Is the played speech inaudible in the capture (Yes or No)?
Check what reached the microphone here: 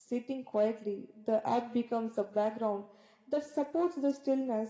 Yes